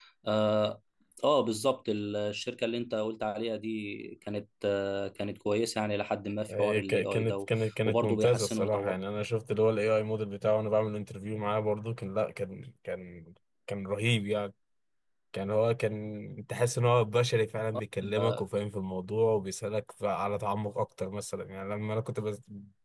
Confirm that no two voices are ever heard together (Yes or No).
No